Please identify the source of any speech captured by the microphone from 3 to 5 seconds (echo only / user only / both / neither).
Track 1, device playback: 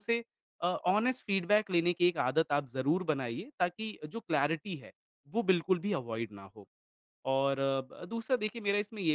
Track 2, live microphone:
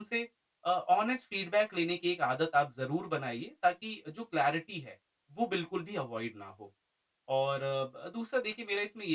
echo only